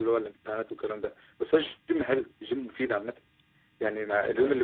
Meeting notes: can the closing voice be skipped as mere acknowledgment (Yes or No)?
Yes